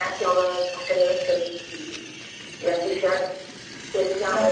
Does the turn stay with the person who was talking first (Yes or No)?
No